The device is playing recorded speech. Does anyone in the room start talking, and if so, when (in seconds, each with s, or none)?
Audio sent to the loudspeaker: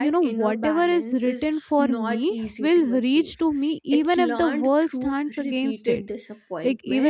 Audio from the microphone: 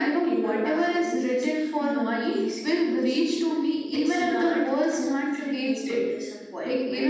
none